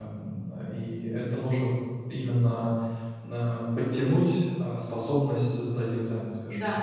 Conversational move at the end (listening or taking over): taking over